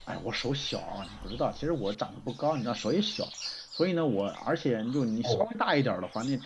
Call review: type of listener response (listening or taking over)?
listening